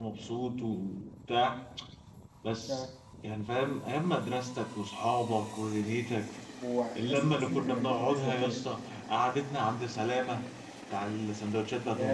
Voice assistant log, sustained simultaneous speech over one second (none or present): present